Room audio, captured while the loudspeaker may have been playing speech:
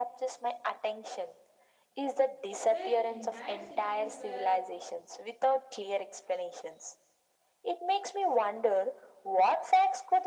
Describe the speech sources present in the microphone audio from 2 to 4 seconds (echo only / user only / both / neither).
both